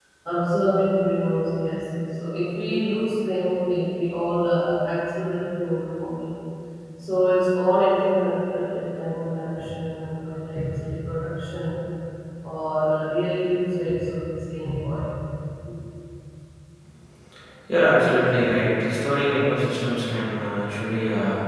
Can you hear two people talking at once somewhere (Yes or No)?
No